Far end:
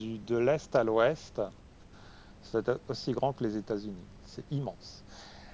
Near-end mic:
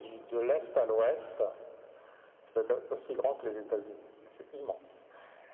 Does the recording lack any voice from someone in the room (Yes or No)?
Yes